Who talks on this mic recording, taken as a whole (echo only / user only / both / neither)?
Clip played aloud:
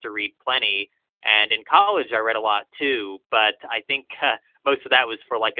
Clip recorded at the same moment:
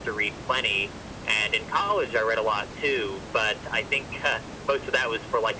echo only